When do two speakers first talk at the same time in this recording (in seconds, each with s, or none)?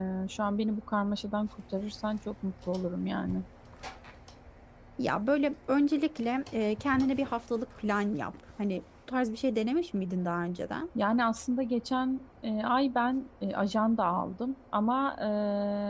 none